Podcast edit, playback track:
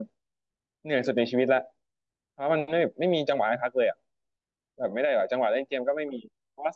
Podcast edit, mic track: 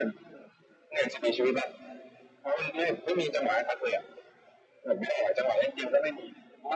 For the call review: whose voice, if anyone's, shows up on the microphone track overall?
echo only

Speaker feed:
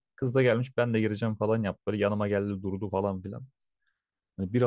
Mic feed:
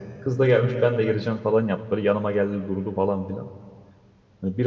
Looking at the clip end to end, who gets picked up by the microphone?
echo only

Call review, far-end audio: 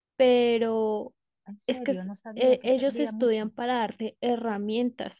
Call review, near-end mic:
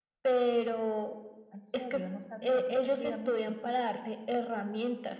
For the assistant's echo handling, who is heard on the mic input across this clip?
echo only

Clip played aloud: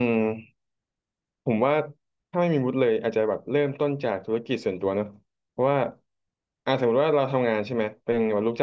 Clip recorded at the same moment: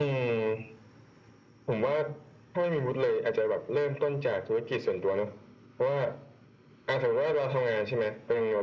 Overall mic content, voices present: echo only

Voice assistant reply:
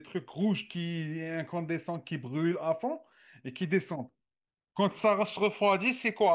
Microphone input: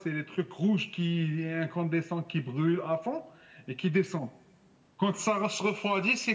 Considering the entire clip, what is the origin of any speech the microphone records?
echo only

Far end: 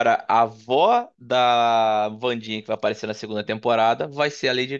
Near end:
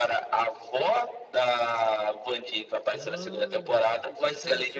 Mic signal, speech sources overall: both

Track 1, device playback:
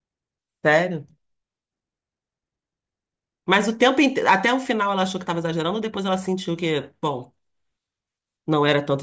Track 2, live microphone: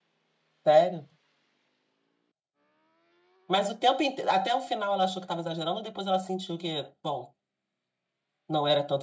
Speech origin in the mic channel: echo only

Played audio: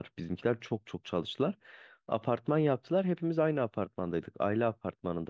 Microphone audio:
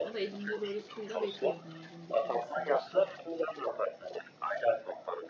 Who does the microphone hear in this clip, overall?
both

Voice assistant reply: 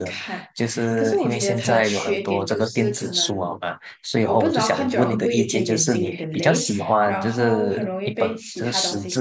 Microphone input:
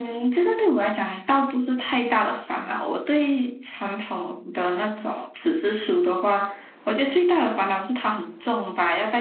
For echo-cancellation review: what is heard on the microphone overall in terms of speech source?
user only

